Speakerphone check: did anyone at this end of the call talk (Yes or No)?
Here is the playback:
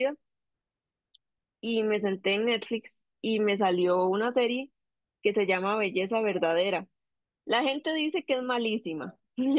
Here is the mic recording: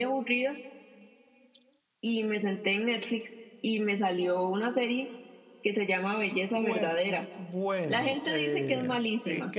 Yes